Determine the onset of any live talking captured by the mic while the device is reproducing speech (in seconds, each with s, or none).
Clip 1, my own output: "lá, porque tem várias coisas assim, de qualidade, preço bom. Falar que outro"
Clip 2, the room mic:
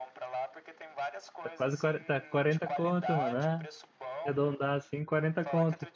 1.4 s